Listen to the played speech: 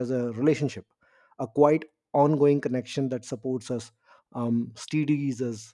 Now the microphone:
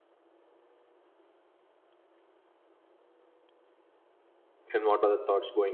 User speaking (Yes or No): Yes